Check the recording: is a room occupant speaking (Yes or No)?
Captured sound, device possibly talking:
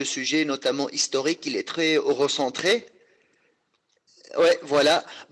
No